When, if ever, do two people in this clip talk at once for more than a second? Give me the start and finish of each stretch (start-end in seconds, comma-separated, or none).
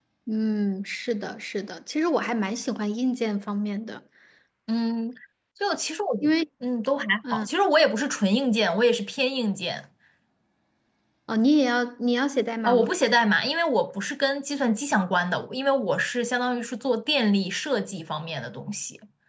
none